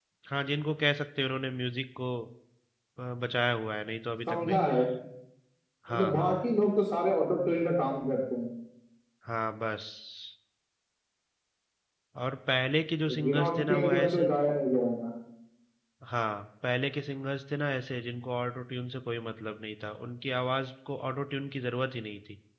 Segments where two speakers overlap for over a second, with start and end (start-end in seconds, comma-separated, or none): 13.1-14.3